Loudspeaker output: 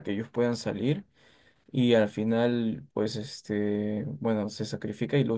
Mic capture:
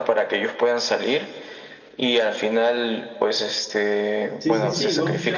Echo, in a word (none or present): present